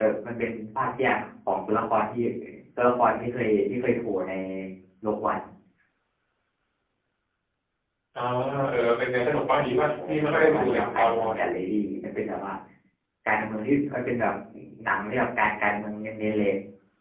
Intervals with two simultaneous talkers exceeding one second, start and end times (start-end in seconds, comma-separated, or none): 10.1-11.3